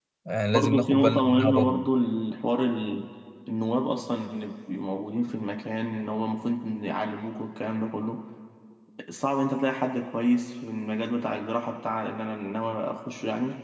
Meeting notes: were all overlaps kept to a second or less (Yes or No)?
No